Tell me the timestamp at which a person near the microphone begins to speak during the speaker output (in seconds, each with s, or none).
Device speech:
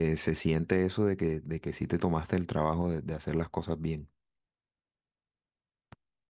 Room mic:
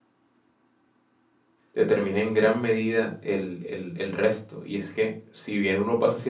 1.7 s